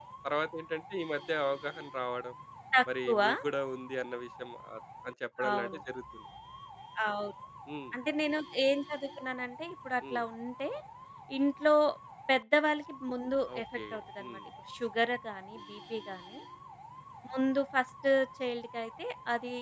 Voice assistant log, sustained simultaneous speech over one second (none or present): none